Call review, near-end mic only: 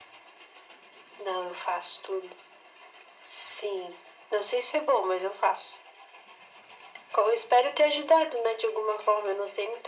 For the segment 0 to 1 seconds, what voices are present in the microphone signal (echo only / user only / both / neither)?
neither